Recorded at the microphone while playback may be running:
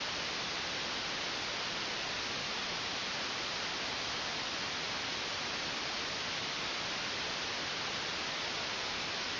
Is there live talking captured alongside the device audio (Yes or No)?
No